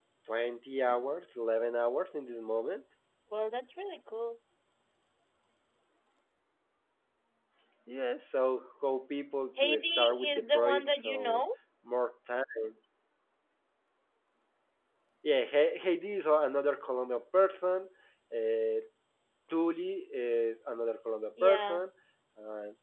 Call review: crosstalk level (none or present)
present